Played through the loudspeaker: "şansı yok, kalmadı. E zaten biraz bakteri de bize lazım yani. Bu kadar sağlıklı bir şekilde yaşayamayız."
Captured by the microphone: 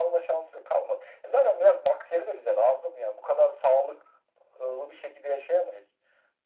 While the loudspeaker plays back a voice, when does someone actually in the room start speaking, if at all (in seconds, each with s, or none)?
none